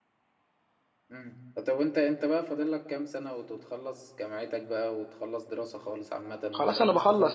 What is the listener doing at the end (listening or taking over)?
taking over